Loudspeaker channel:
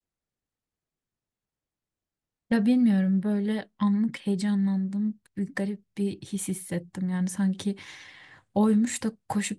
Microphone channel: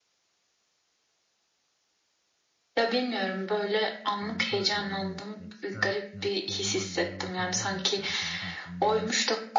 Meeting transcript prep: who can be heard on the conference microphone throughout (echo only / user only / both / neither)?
both